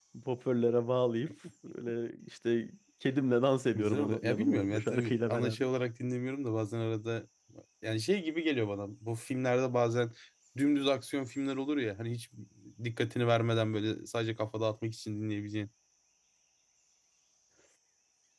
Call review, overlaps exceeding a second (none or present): present